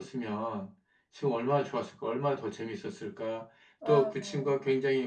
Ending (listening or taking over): listening